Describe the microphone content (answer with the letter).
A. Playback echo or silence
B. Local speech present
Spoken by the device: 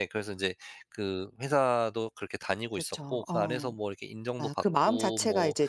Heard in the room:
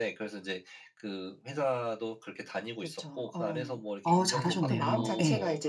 B